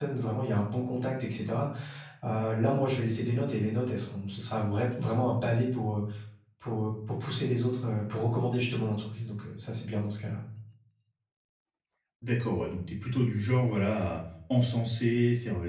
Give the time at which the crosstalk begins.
none

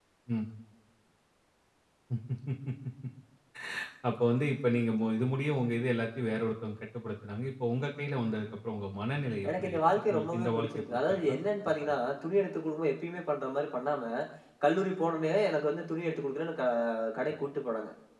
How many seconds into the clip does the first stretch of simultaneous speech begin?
9.4 s

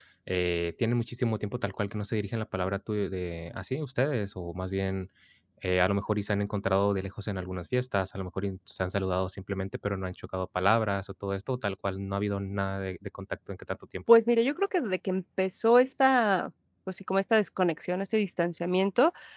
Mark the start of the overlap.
none

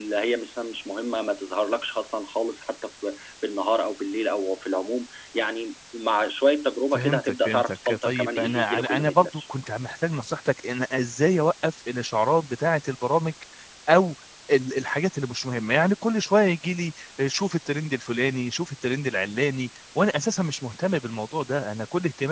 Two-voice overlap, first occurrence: 6.9 s

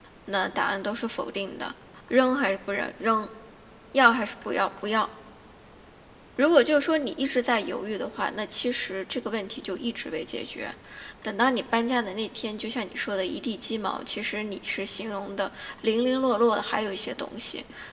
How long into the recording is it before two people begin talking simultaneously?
none

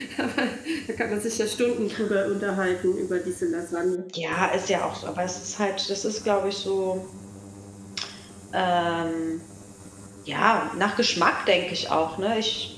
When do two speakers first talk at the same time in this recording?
none

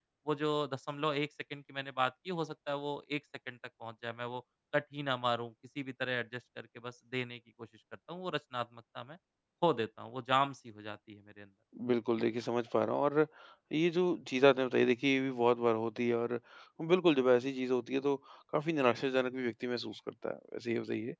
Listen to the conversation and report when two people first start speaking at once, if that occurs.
none

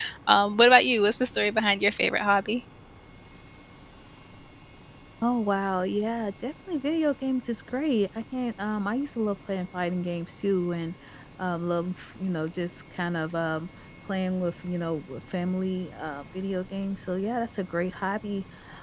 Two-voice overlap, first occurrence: none

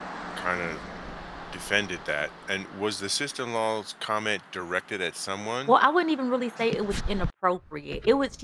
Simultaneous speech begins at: none

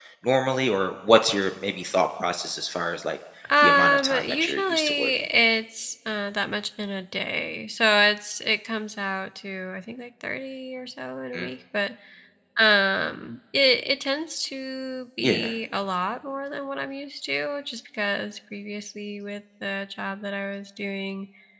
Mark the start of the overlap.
3.6 s

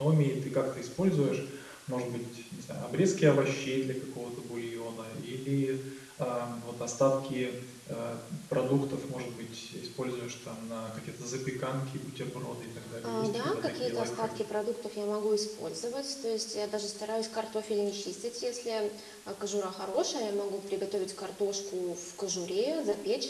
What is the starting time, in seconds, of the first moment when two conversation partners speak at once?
12.8 s

